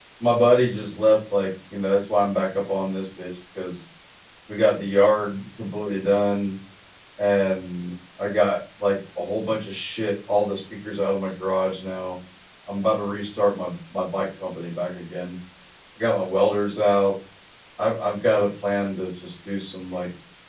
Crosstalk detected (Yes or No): No